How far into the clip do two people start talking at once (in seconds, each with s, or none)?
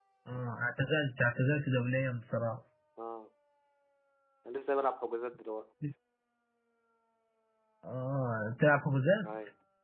none